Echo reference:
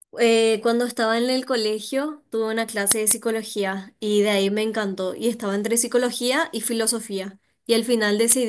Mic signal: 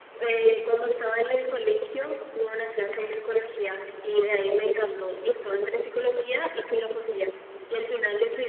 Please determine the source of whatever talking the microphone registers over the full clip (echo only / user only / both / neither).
echo only